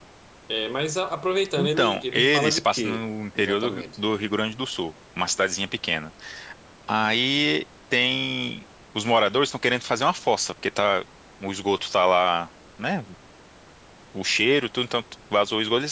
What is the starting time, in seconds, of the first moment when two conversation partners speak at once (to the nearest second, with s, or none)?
2 s